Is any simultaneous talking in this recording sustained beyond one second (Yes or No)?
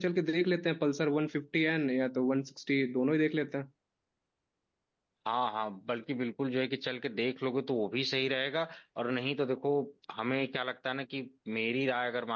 No